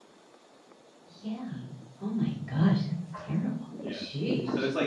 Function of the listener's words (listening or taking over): taking over